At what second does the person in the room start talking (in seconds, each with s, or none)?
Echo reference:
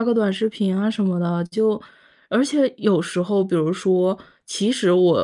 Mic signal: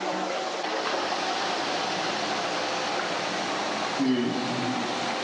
4.0 s